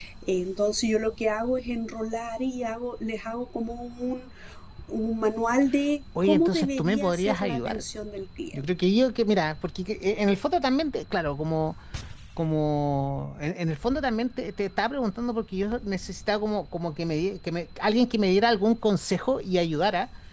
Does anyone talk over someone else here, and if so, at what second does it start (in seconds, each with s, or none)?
6.2 s